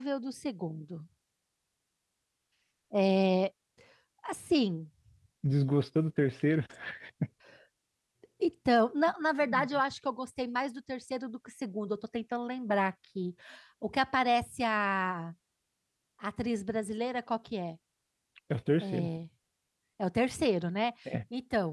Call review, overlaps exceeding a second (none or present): none